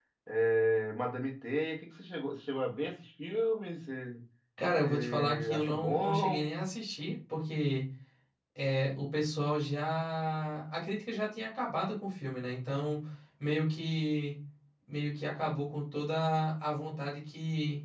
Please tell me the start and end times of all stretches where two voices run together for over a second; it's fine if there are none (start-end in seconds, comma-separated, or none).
4.8-6.4